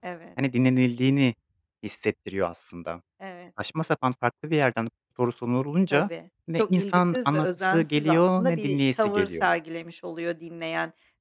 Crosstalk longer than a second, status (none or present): present